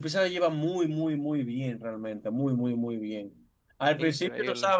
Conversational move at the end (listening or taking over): listening